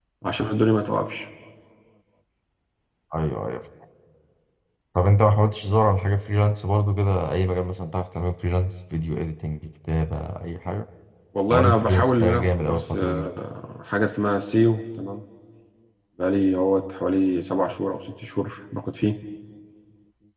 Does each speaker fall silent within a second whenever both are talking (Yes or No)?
No